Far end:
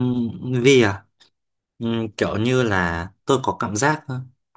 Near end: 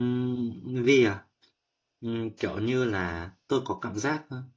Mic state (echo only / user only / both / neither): echo only